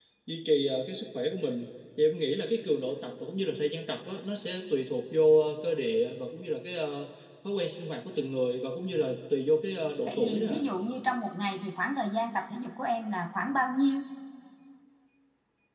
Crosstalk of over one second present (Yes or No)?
No